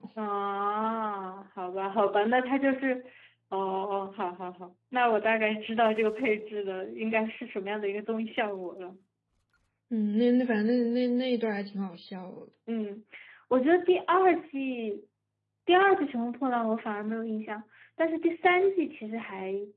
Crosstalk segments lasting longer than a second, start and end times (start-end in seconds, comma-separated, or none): none